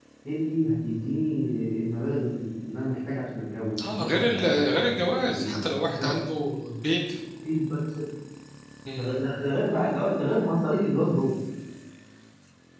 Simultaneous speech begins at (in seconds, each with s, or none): 3.8 s